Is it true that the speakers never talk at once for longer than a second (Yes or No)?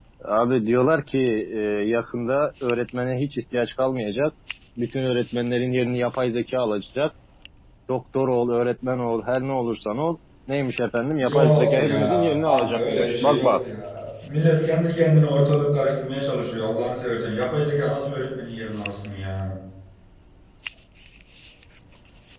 No